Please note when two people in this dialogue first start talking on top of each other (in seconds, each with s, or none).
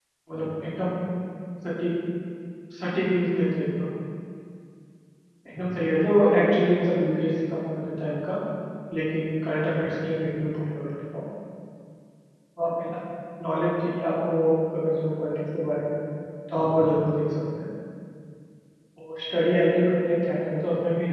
none